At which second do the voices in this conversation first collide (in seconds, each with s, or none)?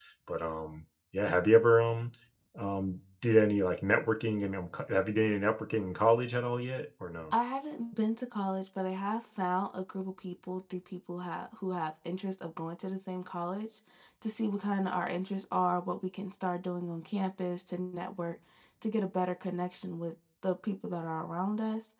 none